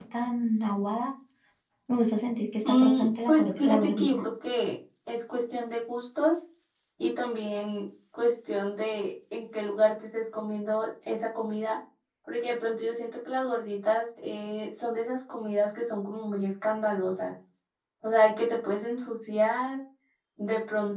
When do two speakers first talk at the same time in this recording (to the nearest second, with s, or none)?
3 s